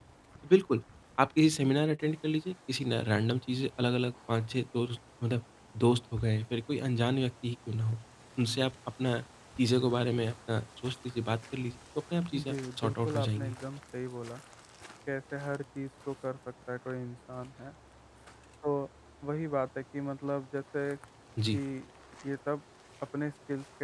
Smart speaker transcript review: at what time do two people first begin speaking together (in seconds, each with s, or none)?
12.3 s